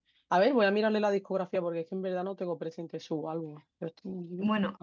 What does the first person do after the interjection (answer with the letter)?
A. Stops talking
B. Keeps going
A